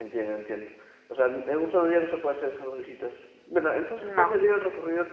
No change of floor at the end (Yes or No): Yes